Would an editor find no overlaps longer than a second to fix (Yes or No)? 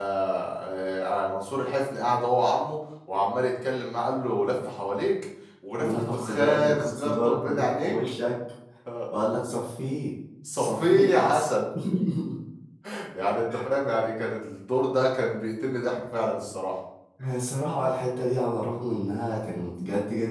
No